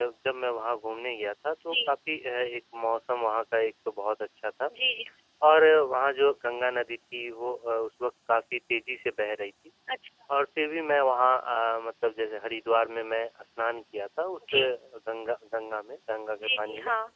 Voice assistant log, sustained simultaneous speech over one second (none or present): none